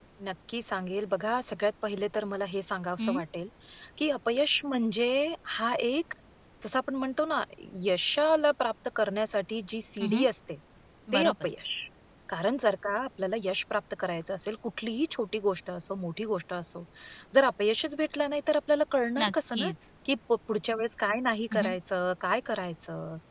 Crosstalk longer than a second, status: none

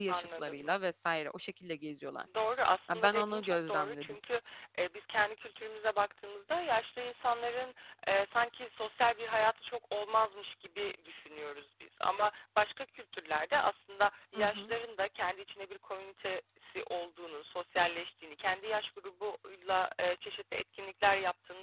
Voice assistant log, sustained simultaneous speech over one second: present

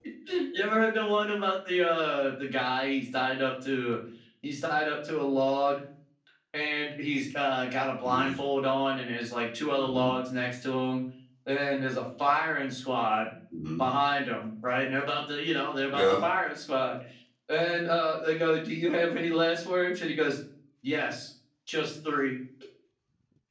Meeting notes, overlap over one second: none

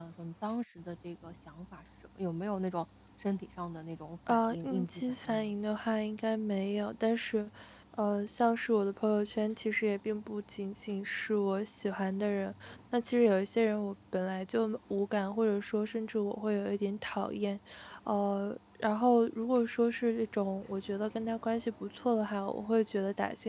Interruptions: present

